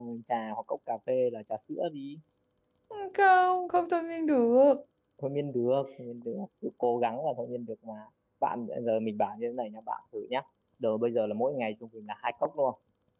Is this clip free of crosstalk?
Yes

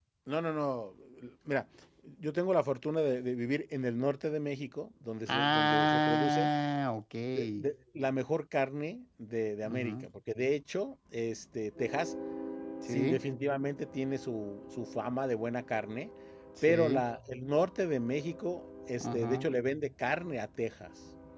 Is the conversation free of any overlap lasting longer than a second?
No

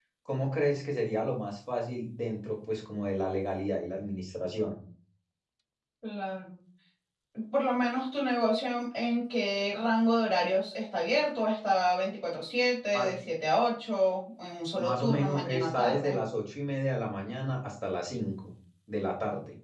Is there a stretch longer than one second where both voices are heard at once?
Yes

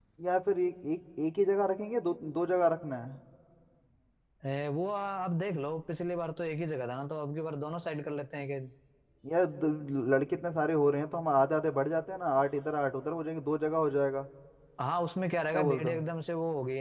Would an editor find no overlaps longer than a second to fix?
Yes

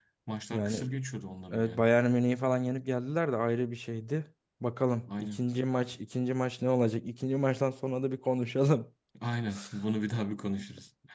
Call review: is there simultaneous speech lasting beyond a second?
No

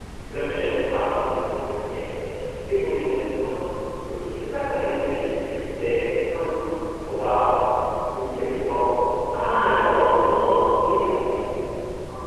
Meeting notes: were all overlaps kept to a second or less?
No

